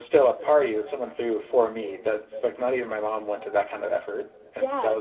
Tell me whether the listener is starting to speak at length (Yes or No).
Yes